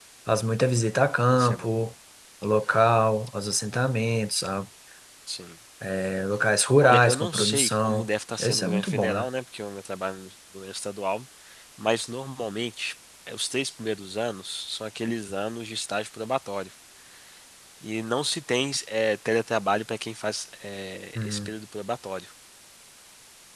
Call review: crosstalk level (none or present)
present